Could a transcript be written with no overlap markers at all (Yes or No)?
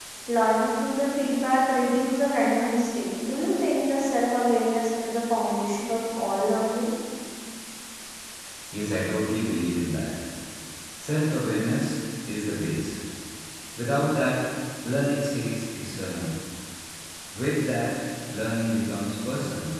Yes